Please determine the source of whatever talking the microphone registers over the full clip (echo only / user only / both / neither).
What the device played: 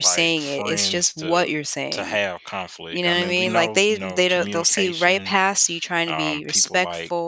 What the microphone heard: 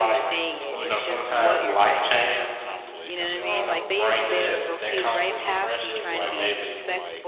both